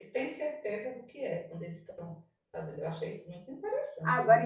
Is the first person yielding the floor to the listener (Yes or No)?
Yes